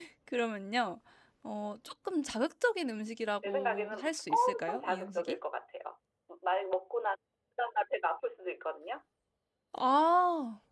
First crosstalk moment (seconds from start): 3.4 s

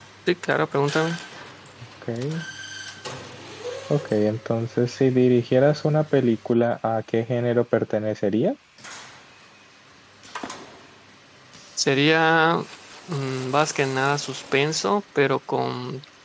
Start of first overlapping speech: none

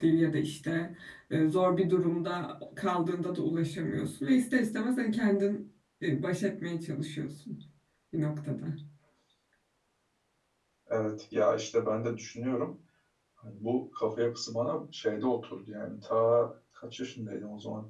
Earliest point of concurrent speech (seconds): none

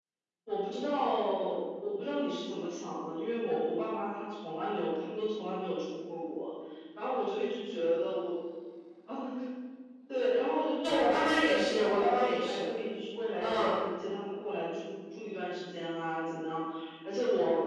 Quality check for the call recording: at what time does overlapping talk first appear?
10.8 s

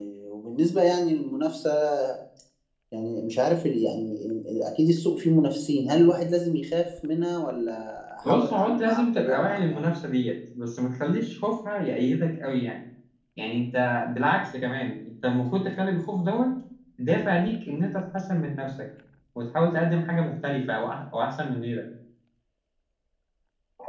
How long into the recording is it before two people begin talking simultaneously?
8.2 s

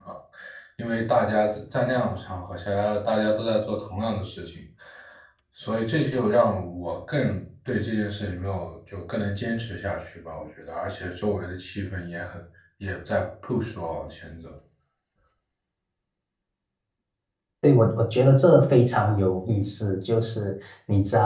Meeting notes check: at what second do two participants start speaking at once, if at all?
none

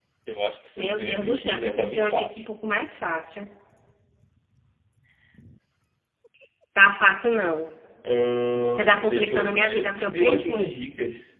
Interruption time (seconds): 0.8 s

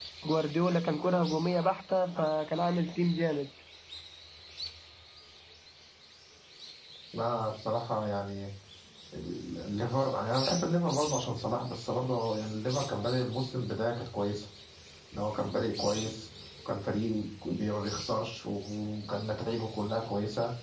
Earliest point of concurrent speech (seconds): none

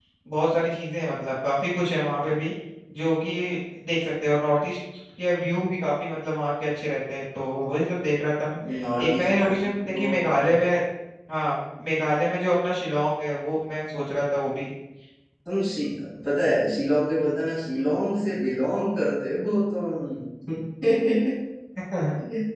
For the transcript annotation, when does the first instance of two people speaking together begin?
9.0 s

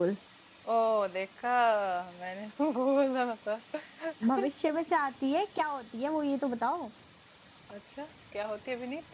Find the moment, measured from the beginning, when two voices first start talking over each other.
none

